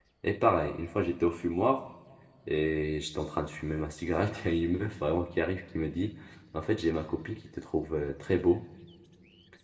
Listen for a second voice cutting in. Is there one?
No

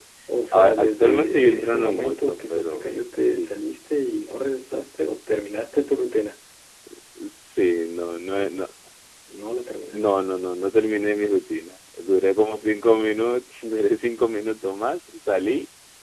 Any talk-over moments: Yes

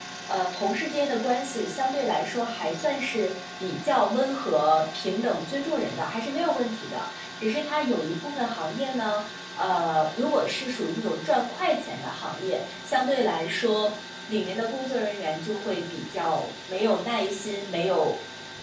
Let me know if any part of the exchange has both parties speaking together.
No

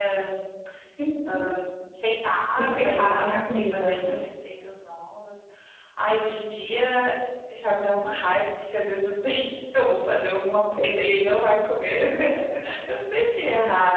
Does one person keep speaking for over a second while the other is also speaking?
Yes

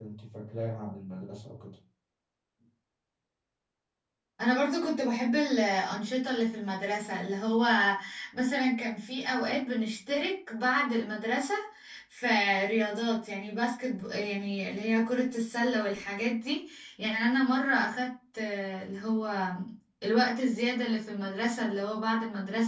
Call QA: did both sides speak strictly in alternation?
Yes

